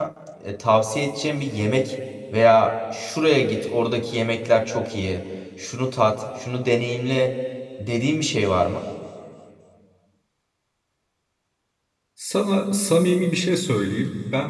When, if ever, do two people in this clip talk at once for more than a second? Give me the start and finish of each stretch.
none

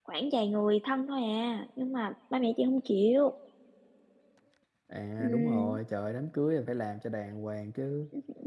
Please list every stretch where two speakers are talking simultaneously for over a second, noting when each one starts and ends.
none

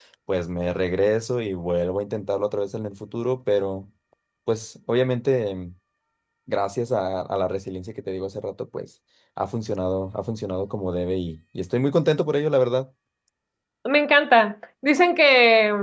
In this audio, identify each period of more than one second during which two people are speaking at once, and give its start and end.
none

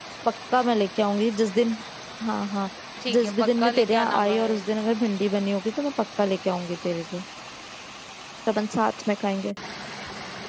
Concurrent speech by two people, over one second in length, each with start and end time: 3.1-4.6

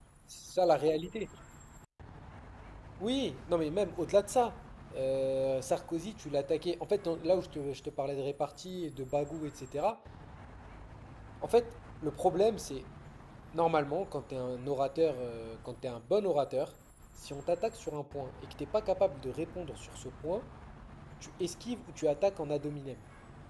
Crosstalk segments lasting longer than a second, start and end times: none

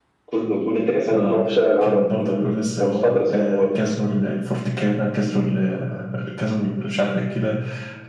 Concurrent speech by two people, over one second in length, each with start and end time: 1.8-3.8

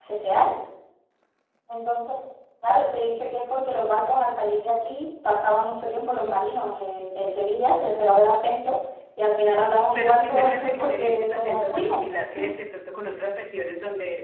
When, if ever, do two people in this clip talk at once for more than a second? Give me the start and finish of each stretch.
9.9-12.0

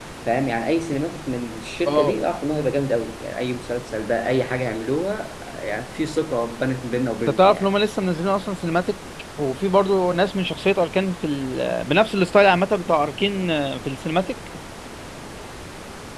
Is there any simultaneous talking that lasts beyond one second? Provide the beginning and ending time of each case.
none

